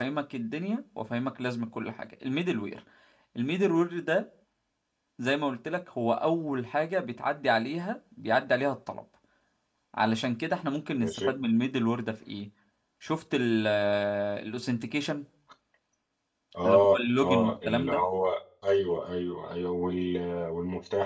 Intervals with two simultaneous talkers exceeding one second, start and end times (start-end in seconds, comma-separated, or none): 16.6-18.1